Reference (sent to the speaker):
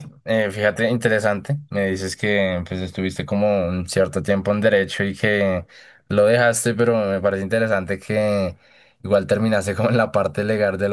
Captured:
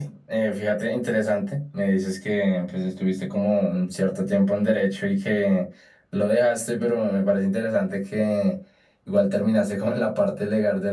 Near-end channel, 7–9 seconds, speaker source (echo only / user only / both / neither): echo only